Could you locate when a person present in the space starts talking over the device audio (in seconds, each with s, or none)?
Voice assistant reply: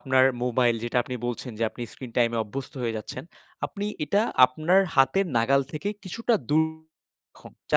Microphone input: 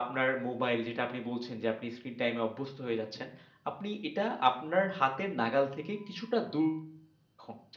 none